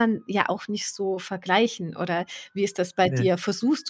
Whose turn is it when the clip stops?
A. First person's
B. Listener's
A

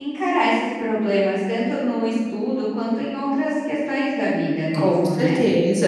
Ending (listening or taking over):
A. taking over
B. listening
A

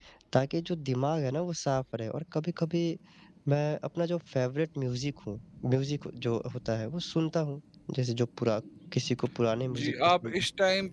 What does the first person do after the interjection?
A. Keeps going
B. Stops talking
B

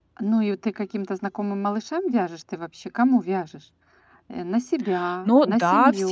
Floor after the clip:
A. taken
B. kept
A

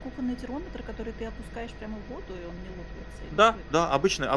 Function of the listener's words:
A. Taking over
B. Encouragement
A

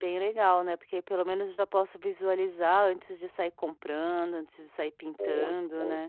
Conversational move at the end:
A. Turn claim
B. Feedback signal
A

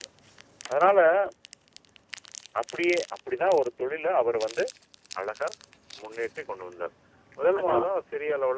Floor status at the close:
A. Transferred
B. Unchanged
B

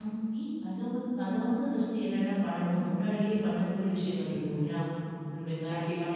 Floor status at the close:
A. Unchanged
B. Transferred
B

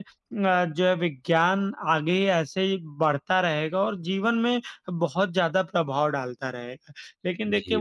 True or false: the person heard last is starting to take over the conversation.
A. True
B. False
B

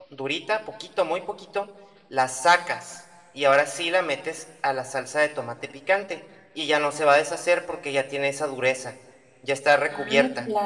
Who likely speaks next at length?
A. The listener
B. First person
A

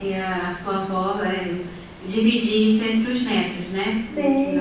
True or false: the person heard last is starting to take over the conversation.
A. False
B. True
B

